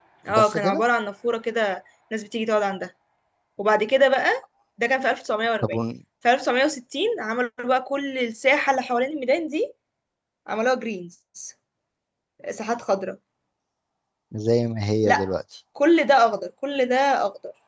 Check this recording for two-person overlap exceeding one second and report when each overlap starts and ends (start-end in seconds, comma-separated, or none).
none